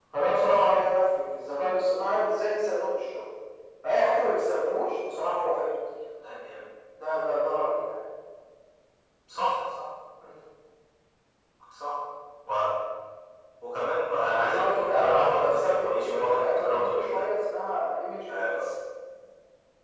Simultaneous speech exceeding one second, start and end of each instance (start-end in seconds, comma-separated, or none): 14.2-17.2